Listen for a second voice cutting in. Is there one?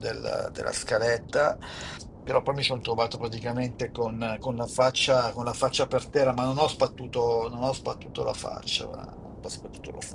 No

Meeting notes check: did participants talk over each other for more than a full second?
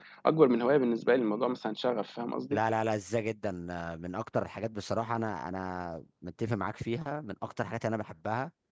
No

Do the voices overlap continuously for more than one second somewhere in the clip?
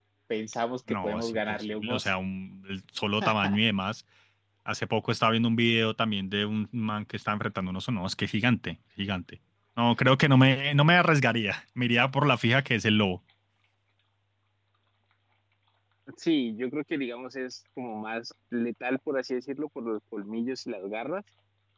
Yes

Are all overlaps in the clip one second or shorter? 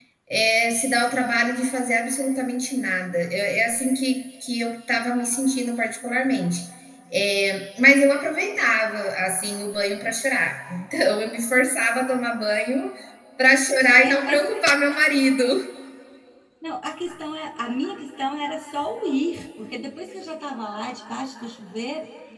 Yes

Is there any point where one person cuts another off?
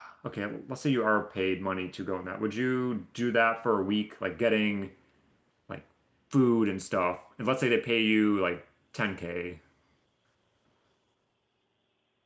No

